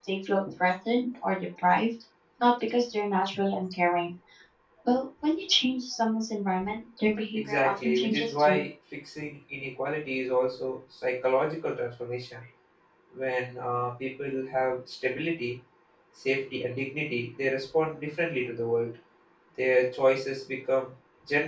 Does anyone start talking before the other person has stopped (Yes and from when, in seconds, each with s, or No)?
Yes, from 7.3 s